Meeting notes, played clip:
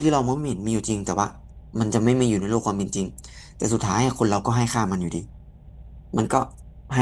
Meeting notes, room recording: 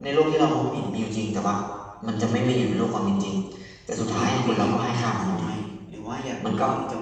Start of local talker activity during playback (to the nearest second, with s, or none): 4 s